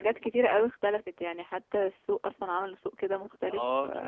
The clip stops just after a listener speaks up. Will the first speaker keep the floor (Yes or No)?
No